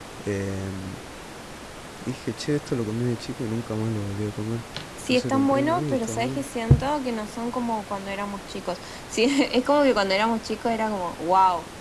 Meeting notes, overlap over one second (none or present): present